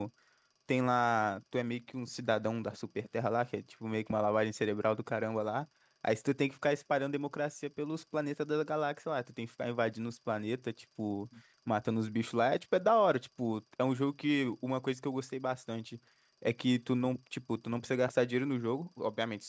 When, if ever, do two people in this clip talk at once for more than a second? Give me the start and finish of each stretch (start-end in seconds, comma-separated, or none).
none